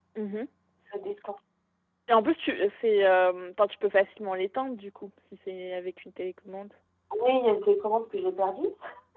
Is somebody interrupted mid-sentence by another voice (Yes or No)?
No